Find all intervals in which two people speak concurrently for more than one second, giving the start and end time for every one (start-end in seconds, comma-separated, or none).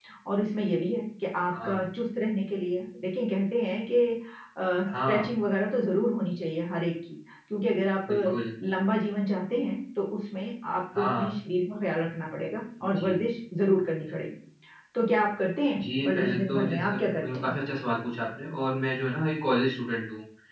15.8-17.5